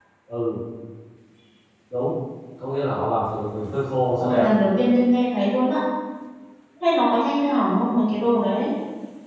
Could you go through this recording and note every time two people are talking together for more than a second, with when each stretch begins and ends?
none

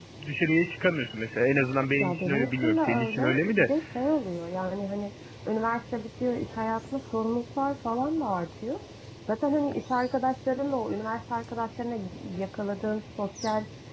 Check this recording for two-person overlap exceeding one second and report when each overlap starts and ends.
2.0-3.7

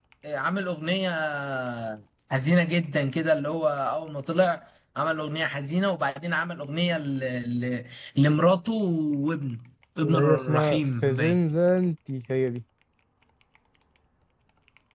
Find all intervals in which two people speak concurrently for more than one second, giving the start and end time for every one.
10.0-11.4

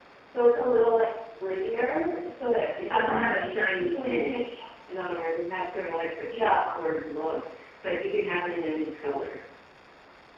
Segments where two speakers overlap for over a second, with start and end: 2.9-4.4

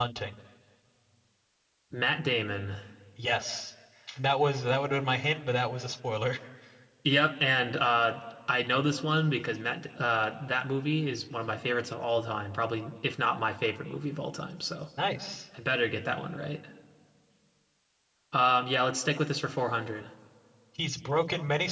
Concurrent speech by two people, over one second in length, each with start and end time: none

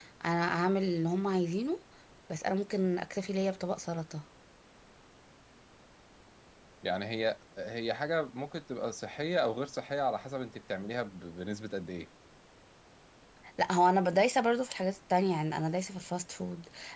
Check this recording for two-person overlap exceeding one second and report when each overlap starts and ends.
none

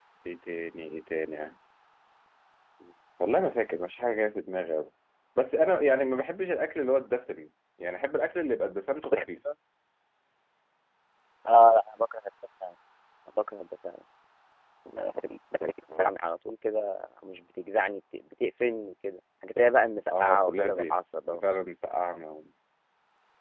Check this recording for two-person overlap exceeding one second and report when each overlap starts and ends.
20.2-21.4

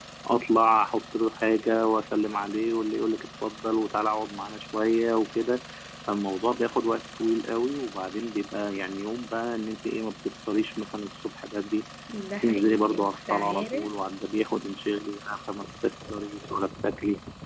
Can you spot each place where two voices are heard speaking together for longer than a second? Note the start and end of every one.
12.3-13.9

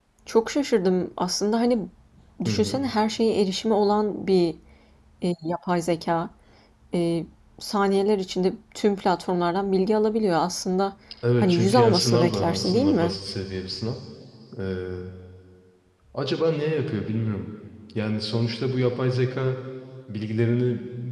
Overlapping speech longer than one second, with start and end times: 11.4-13.2

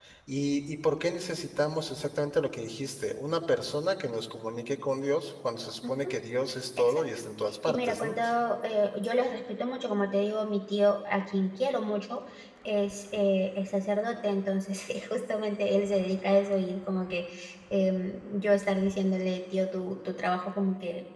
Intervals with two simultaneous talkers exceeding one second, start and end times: none

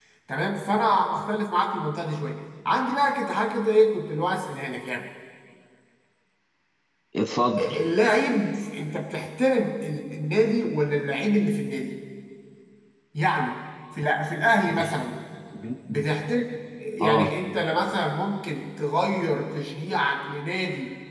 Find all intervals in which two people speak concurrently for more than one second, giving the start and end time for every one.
none

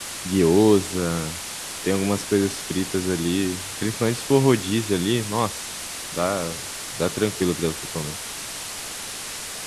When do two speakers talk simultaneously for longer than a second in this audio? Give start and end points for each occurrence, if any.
none

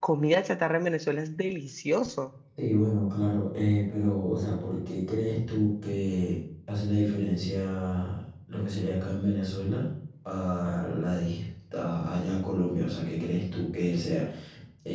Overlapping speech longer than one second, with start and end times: none

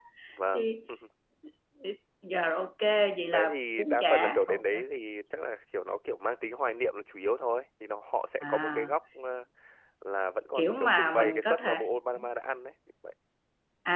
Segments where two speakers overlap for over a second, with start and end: 3.3-4.6, 10.6-11.8

